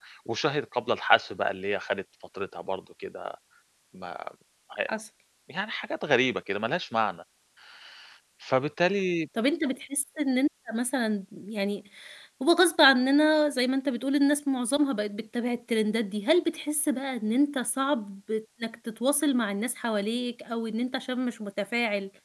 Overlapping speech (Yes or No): No